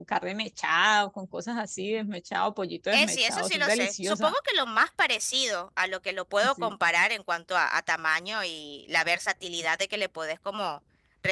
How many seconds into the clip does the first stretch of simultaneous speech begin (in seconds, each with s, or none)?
2.9 s